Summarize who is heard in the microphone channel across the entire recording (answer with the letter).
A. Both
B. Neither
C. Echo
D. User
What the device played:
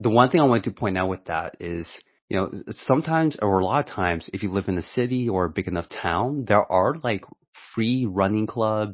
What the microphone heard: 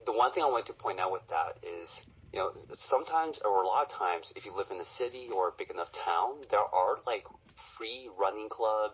C